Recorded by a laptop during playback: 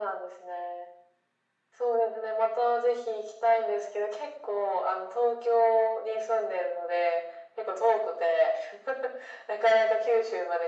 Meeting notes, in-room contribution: none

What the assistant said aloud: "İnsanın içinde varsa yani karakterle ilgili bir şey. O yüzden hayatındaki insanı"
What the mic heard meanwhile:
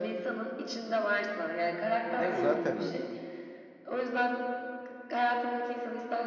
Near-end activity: present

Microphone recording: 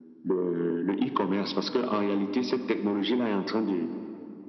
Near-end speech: none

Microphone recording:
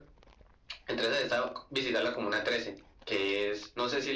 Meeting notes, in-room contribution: none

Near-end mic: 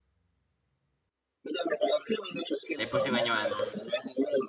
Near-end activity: present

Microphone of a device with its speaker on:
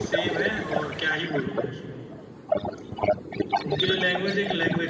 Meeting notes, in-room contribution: present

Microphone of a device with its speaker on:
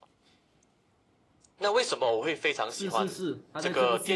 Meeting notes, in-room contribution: present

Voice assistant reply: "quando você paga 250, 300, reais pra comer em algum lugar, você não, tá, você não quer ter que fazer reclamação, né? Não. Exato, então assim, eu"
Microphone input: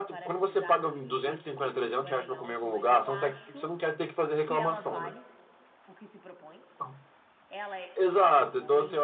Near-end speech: present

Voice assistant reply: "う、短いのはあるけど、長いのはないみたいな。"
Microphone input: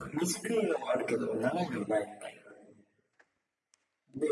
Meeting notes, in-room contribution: none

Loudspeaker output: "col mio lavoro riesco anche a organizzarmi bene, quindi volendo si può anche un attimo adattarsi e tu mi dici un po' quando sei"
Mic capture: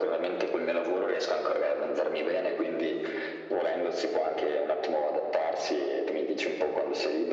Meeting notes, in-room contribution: none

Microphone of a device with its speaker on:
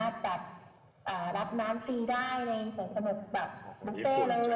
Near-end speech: present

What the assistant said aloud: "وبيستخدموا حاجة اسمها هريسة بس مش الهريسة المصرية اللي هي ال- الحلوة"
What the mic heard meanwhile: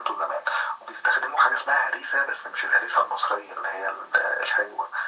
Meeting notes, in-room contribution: none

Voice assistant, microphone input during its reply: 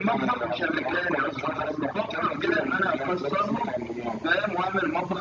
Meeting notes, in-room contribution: none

